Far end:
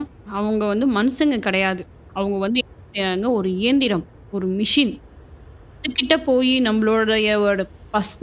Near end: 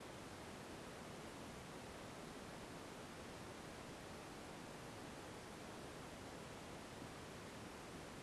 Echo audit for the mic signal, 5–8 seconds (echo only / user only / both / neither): neither